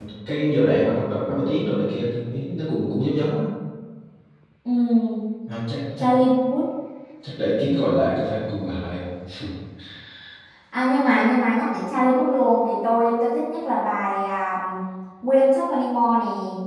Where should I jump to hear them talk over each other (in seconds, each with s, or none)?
none